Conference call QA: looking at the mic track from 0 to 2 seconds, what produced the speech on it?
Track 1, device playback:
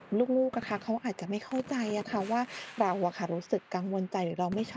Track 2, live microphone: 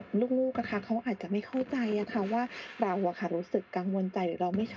echo only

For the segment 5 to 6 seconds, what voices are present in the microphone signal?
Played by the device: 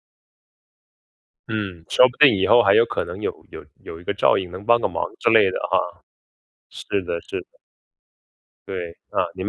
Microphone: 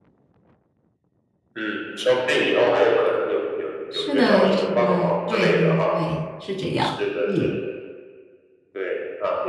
both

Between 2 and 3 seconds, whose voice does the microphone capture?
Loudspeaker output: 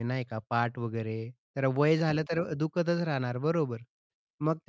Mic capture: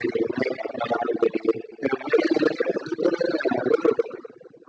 echo only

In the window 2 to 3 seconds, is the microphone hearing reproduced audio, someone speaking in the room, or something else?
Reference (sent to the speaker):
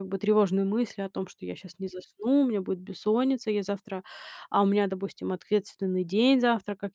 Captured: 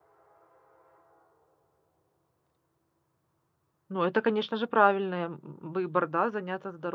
neither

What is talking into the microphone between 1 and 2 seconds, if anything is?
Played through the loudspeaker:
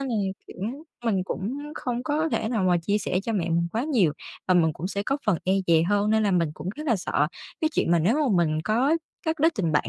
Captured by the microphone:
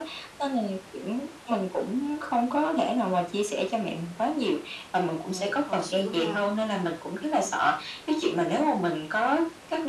echo only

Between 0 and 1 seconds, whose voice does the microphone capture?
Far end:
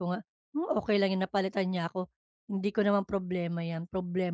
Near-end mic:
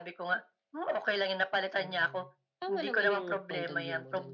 echo only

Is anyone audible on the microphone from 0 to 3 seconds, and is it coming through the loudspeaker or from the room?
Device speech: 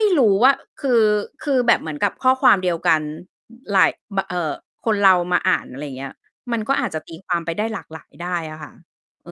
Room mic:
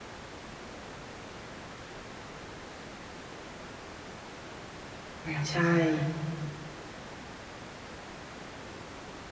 neither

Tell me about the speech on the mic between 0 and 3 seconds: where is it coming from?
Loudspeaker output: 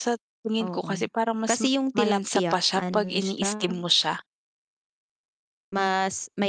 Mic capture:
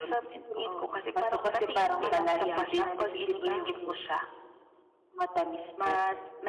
both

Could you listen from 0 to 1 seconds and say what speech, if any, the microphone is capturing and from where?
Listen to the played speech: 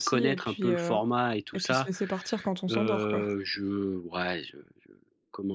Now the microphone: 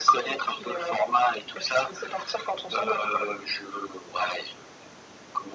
echo only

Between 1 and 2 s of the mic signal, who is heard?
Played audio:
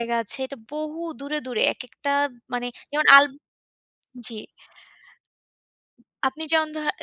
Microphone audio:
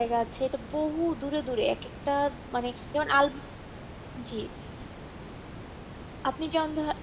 echo only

